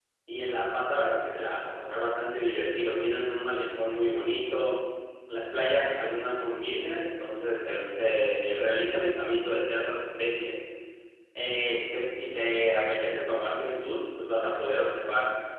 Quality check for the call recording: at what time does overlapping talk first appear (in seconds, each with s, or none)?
none